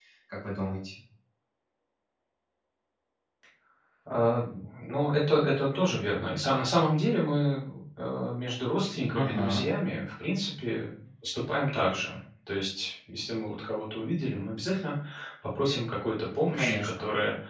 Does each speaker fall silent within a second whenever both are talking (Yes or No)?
Yes